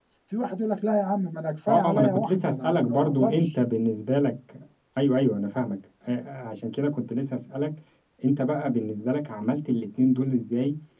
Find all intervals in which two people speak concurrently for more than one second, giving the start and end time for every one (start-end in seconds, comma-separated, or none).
1.7-3.6